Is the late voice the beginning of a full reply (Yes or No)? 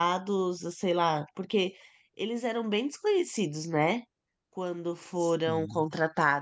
No